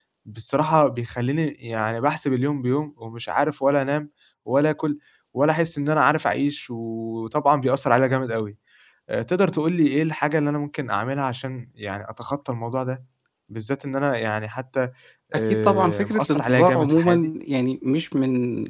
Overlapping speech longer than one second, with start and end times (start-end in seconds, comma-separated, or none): 15.6-17.3